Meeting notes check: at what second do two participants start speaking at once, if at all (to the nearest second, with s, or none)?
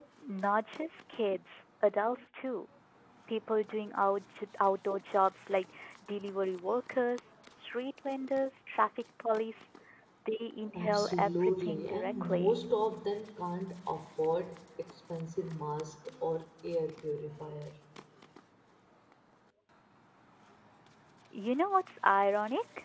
11 s